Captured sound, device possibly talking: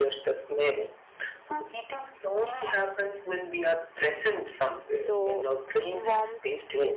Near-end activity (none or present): present